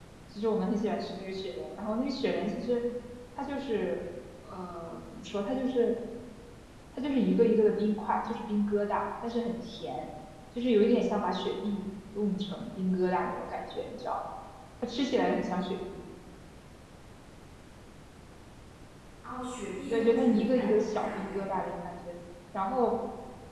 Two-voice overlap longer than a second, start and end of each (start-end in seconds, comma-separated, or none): 19.9-21.7